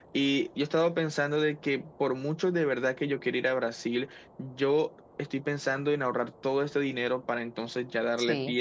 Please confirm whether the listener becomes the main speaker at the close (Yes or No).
Yes